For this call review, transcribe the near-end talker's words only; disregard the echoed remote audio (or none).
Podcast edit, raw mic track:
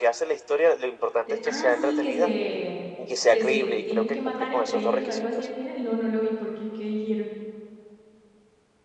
De- ah, sí, que se, que se tienen que matar entre ellos o algo así al final. No, no lo vi porque, ¿qué dijeron?